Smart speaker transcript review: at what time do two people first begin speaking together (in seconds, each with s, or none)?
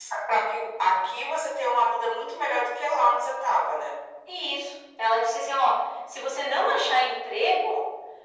none